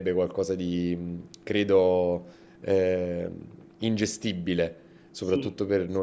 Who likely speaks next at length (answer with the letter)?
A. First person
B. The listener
A